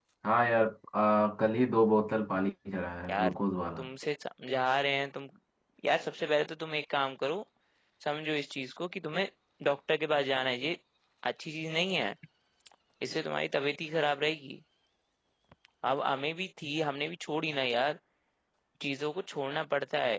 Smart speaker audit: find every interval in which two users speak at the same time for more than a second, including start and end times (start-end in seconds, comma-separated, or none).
none